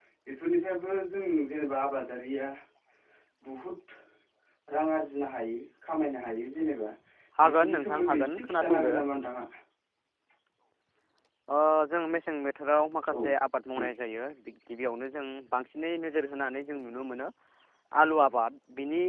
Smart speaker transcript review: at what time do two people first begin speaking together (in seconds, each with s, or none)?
7.4 s